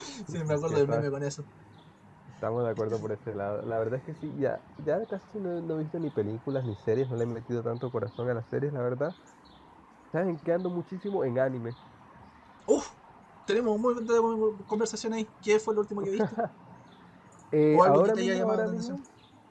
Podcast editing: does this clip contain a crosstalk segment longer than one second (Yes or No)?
Yes